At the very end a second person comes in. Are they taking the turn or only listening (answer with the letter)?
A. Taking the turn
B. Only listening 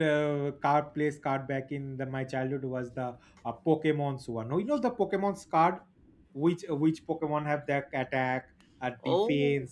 B